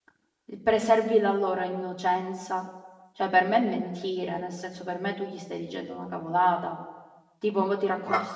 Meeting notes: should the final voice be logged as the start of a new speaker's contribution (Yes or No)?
No